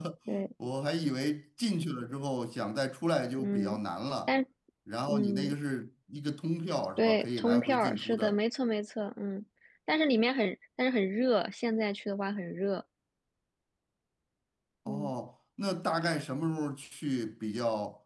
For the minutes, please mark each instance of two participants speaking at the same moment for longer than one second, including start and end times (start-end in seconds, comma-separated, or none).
7.0-8.4